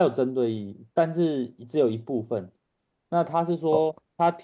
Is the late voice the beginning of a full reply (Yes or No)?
No